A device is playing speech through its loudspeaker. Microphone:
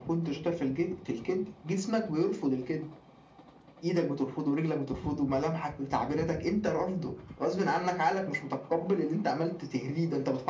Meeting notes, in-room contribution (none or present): none